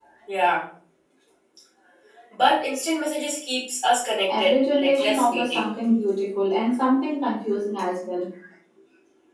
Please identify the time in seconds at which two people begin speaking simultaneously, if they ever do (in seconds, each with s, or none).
4.3 s